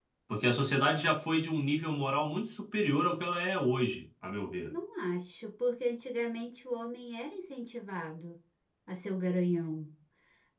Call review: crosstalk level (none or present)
none